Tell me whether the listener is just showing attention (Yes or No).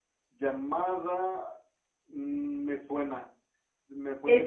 No